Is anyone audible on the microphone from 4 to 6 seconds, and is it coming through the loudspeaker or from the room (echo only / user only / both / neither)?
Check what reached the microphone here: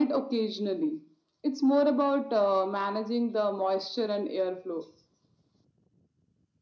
echo only